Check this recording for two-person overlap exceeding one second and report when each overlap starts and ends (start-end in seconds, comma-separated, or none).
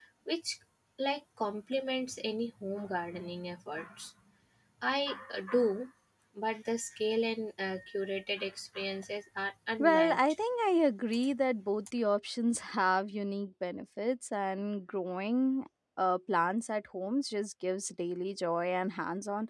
none